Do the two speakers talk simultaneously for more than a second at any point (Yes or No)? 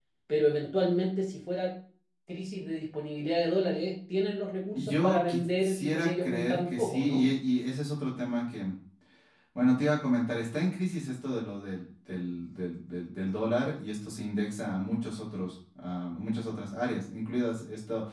Yes